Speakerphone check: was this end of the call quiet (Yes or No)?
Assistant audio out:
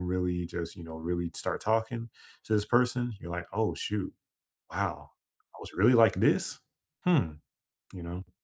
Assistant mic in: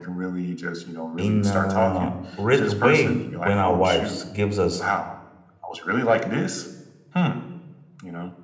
No